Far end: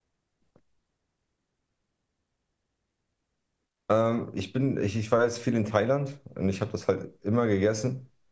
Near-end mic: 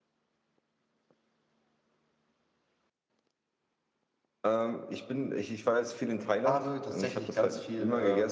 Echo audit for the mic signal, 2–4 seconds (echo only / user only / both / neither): neither